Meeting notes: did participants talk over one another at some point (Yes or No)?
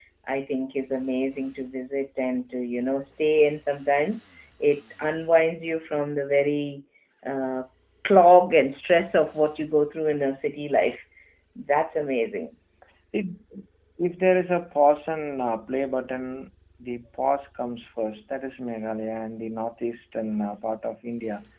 No